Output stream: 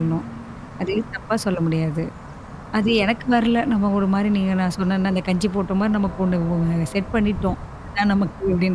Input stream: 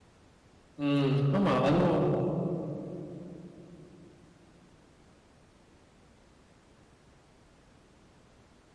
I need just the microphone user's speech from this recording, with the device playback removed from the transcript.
ம். ஆமா. அதுவும்

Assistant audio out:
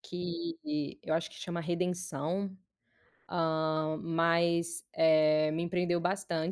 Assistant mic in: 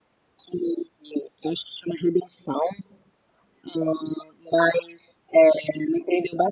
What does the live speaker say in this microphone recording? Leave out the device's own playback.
none

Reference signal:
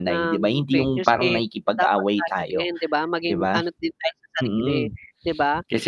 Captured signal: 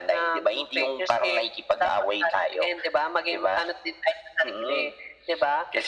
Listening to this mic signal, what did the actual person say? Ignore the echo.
none

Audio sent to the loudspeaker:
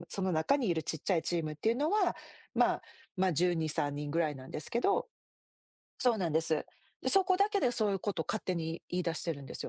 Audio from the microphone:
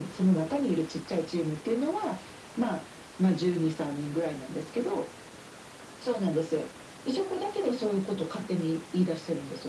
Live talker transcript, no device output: none

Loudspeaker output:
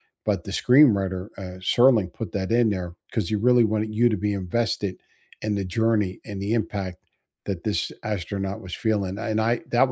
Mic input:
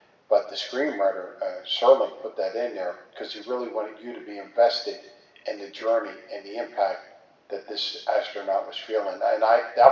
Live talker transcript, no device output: none

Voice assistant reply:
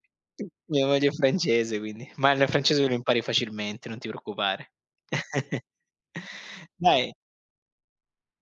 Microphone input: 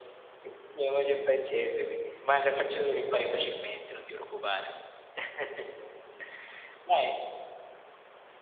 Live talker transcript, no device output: none

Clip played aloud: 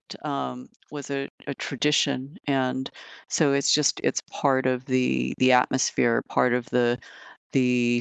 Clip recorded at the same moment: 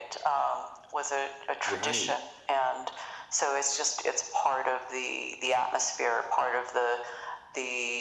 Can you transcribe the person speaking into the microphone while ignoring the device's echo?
Right.

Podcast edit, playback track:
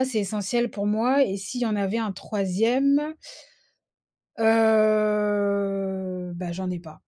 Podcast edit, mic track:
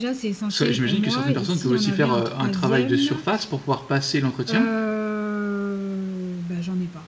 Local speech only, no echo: Ça j'imagine que certaines personnes peuvent aussi faire, heu, un travail de surface, pour pouvoir passer l'entretien.

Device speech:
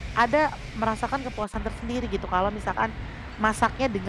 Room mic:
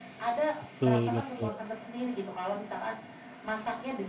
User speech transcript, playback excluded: Betul betul.

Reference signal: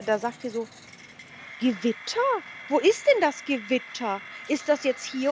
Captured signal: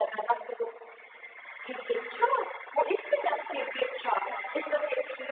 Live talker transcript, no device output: none

